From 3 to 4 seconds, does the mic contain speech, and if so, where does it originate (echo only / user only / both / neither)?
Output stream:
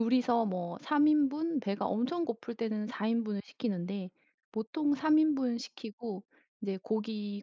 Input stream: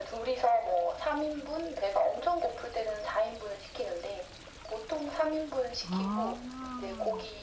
echo only